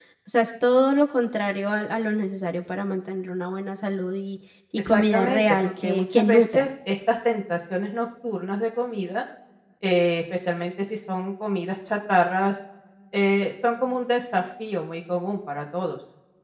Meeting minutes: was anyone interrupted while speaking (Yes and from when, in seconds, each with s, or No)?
Yes, from 4.8 s